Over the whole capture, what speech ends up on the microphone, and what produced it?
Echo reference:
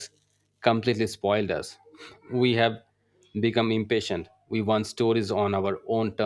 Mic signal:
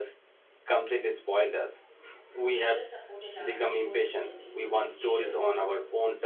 both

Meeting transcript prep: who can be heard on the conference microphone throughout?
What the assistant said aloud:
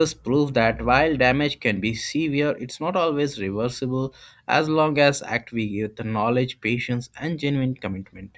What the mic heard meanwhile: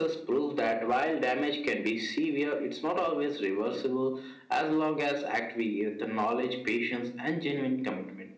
echo only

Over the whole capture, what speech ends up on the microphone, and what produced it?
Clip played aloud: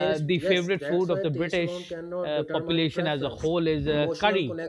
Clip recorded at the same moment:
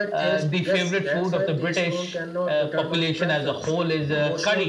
echo only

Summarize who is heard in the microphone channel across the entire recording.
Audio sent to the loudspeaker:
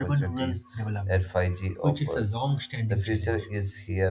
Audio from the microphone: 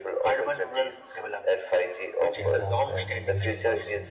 both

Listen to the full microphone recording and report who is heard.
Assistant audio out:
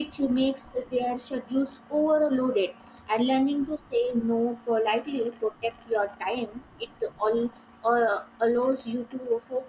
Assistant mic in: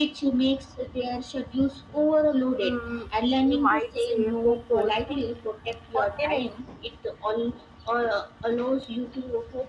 both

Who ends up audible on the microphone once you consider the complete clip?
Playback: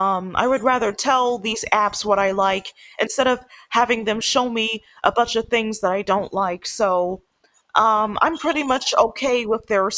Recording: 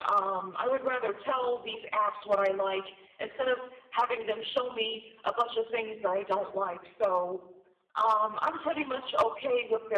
echo only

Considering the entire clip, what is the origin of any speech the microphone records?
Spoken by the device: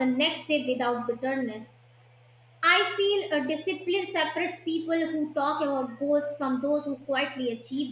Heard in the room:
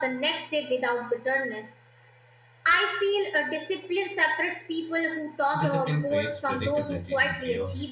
both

